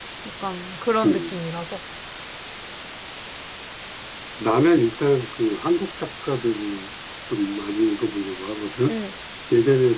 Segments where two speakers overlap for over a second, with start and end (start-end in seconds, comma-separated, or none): none